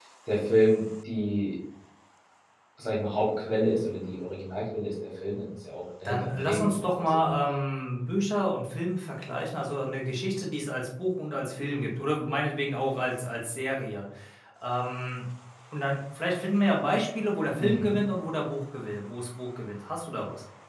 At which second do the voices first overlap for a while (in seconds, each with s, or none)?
6.0 s